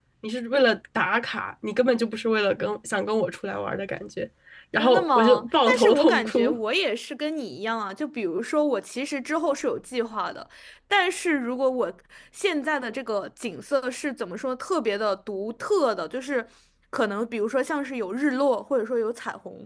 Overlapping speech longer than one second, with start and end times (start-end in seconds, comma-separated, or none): 4.8-6.6